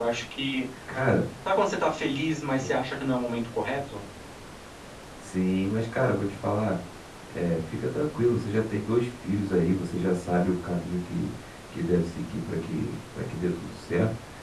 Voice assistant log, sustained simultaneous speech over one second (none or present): none